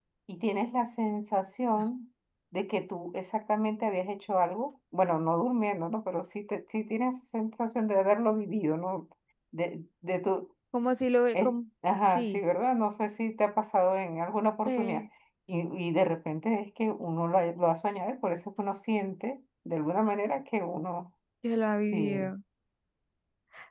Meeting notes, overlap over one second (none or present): none